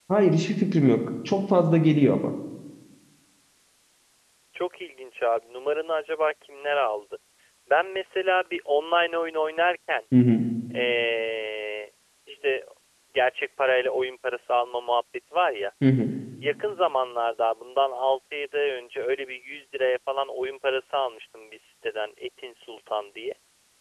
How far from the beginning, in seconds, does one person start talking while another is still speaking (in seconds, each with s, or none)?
none